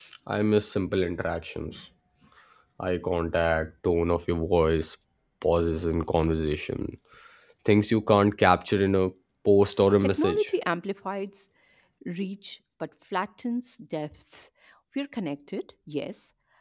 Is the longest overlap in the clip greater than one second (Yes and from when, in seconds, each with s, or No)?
No